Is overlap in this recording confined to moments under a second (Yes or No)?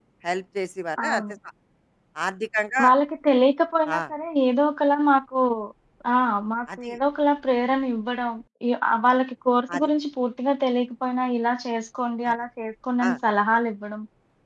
Yes